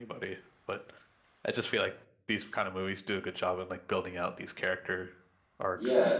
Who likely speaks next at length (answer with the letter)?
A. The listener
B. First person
A